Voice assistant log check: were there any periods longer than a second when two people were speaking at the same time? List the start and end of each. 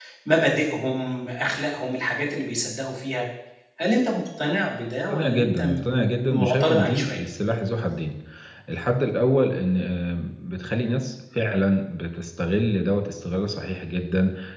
5.1-7.2

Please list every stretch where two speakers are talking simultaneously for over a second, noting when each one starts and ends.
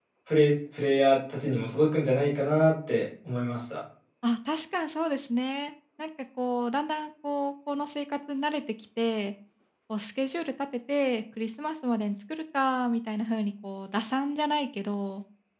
none

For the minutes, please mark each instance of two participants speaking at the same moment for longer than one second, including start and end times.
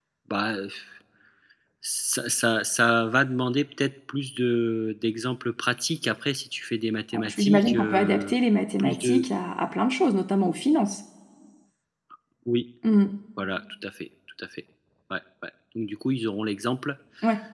7.1-8.4

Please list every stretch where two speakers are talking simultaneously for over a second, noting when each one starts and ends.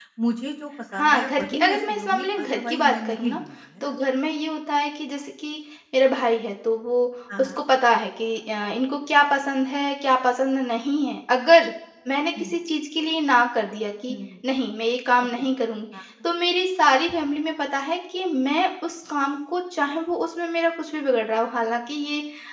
0.9-3.4

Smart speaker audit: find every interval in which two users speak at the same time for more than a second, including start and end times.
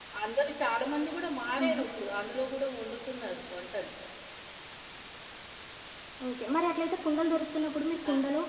none

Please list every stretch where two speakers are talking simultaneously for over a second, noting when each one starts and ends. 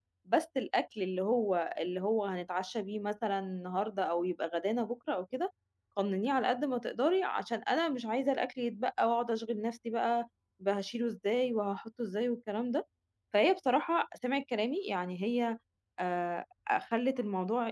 none

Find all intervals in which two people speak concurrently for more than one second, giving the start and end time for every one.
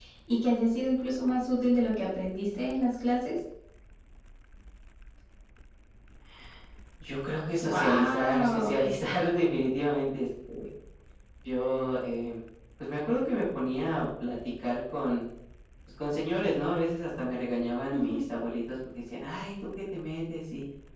7.6-8.9

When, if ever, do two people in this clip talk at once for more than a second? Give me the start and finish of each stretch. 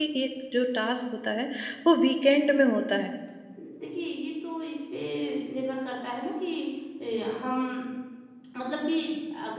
none

